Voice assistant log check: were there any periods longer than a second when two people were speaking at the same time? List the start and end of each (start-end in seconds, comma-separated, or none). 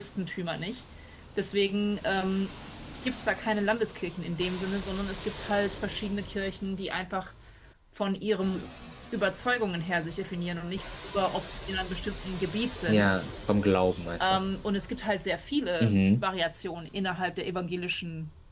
none